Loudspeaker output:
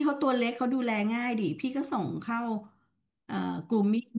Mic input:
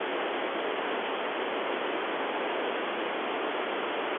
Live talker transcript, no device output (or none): none